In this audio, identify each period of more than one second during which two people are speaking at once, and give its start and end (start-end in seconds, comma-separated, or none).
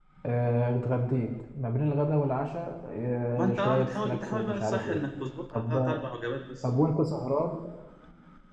3.3-5.0